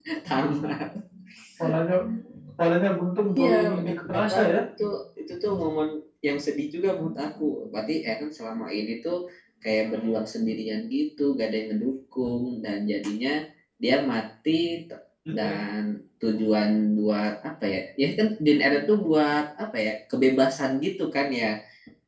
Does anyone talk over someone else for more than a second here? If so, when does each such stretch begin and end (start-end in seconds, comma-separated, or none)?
3.4-4.6